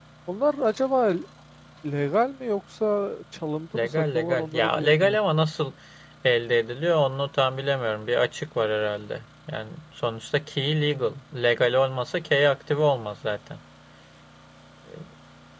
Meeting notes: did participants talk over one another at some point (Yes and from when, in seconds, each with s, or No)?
Yes, from 3.7 s